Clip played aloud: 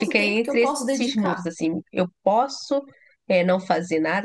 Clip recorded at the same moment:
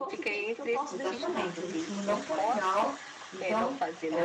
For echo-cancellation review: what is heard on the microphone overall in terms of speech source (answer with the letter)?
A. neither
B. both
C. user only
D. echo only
B